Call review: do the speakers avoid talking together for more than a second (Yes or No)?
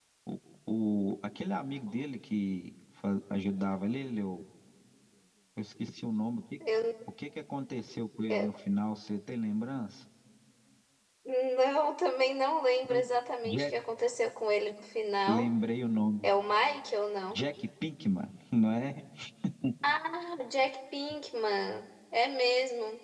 Yes